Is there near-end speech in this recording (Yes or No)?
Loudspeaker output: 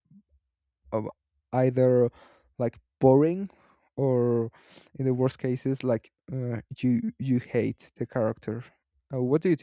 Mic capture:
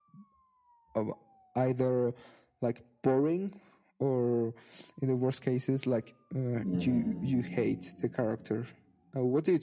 Yes